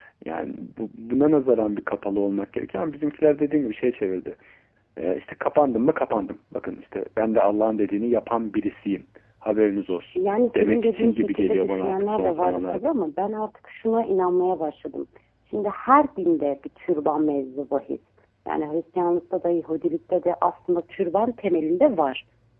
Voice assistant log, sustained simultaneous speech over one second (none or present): present